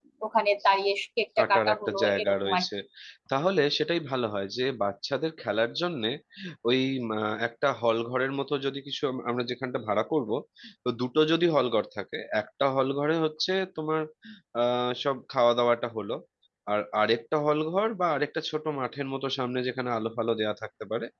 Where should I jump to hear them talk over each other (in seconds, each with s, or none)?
1.4 s